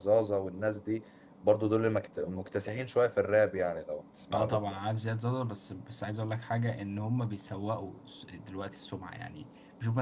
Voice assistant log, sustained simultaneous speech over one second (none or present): none